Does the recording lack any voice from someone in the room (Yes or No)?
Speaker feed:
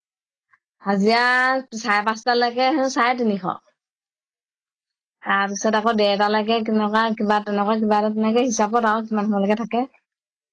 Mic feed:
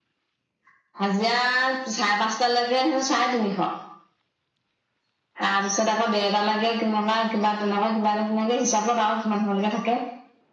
Yes